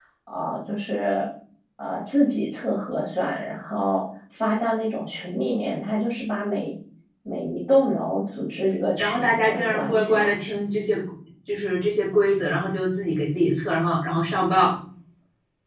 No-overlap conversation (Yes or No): No